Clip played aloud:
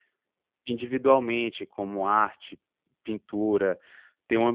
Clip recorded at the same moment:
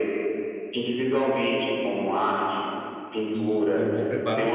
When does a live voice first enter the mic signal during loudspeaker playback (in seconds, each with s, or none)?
3.3 s